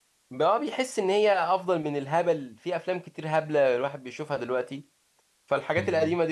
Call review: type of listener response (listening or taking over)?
listening